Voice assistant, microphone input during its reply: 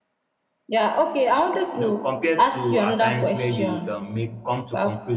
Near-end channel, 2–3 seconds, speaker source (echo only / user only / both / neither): both